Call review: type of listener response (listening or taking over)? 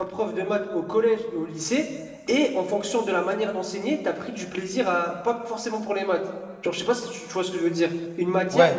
listening